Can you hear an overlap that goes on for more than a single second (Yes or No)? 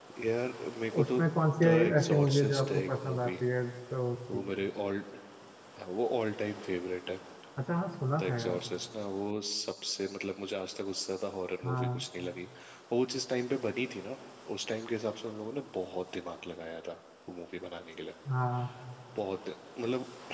Yes